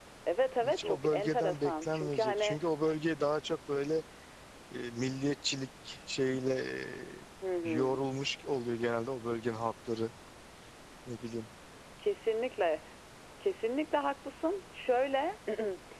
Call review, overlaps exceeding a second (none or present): present